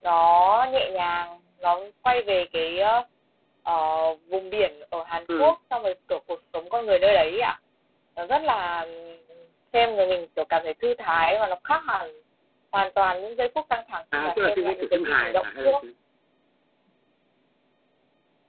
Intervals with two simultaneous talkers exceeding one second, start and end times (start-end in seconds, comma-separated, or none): 14.2-15.8